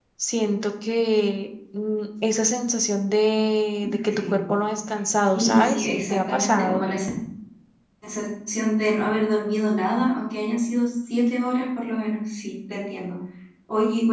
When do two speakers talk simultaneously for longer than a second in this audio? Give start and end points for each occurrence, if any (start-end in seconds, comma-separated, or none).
5.3-6.9